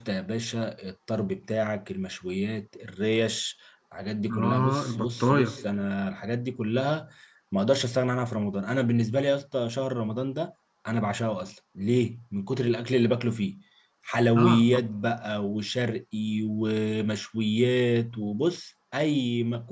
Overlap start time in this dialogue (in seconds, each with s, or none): 4.3 s